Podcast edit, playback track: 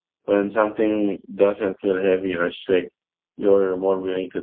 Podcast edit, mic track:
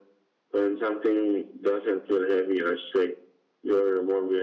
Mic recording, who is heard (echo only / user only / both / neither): echo only